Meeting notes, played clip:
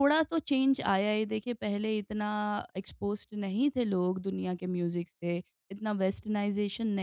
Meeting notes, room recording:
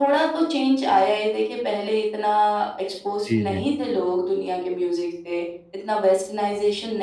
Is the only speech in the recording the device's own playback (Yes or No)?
No